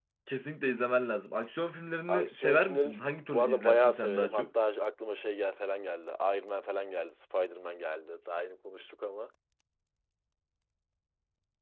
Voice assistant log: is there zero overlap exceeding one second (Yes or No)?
No